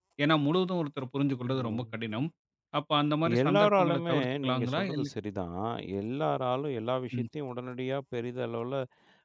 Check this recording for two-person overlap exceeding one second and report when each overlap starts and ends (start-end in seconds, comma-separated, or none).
3.4-5.0